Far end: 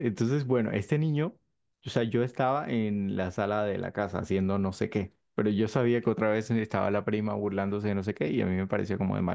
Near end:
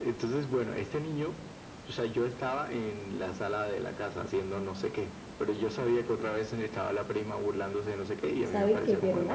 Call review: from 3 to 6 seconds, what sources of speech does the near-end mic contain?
echo only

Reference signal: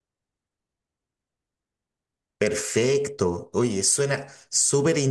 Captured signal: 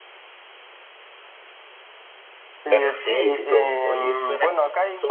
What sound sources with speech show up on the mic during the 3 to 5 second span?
both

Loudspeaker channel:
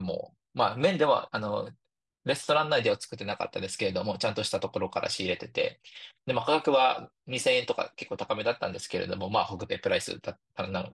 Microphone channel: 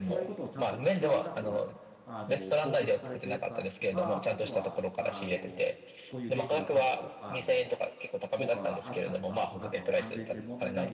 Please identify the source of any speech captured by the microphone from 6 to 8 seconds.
both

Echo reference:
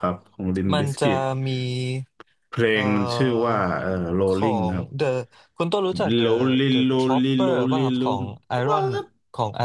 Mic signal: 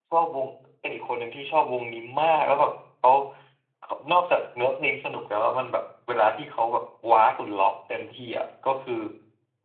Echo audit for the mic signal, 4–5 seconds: user only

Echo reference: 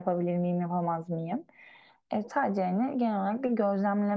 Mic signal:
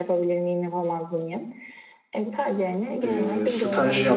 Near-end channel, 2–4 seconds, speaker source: both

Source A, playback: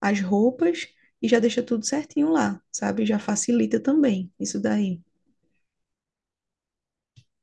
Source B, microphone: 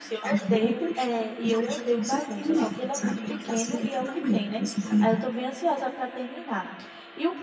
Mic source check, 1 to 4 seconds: both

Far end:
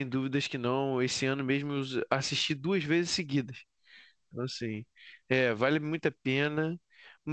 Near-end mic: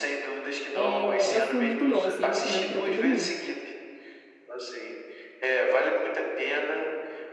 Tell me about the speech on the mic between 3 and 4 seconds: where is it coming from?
both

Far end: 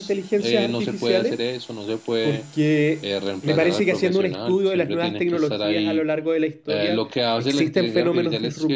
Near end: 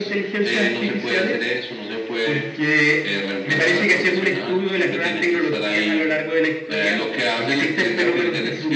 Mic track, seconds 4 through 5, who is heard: echo only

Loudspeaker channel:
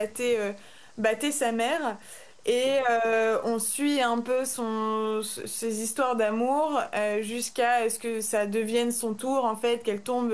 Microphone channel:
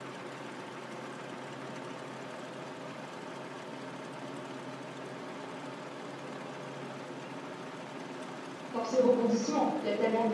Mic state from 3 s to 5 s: neither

